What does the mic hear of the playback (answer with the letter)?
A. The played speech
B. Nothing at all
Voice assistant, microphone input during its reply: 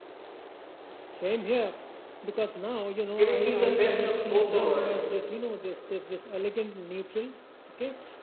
A